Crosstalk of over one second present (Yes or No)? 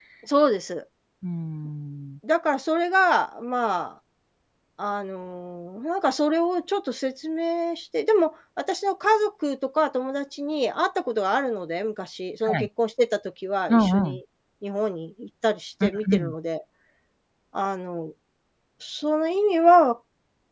No